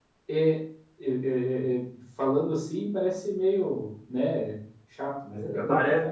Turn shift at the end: Yes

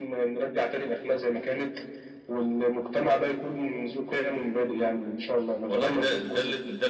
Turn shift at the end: Yes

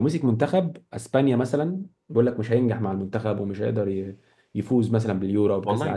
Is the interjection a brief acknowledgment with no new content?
No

